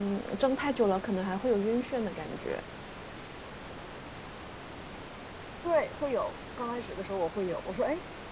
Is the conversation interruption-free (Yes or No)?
Yes